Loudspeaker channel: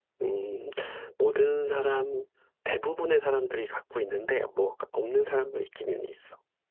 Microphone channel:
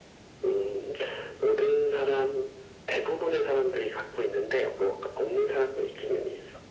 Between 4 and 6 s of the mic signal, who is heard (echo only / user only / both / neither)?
echo only